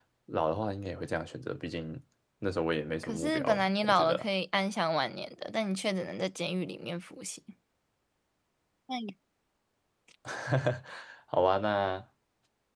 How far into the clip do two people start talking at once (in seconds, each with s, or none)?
3.0 s